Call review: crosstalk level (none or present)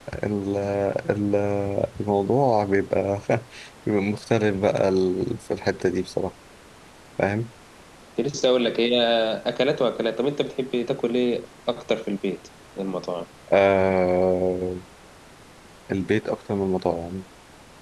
none